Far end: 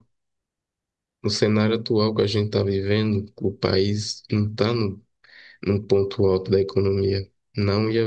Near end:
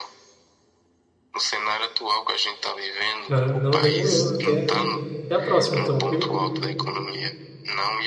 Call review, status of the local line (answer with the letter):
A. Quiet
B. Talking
B